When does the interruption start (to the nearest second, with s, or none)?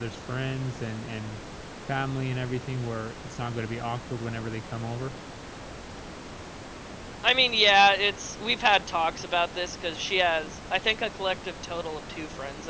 none